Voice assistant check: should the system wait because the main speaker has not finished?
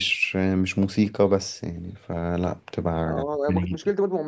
No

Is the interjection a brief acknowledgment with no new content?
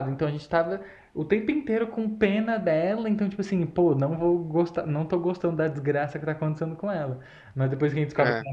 Yes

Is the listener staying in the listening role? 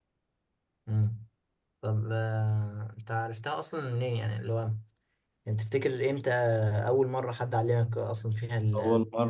No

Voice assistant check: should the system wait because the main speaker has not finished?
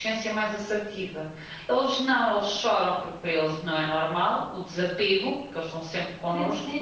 No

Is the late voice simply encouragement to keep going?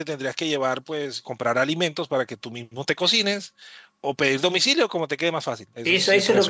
No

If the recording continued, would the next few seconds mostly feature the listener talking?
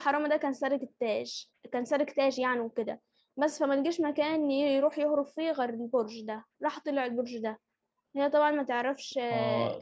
Yes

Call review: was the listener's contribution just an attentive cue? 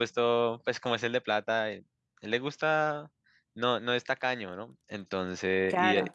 Yes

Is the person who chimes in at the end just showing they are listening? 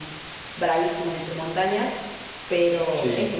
Yes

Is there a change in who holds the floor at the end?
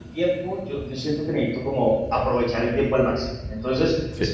No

